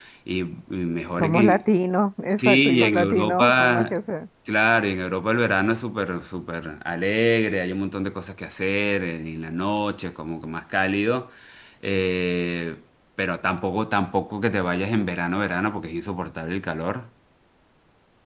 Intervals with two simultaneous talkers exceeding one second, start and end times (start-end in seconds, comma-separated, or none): 2.4-3.9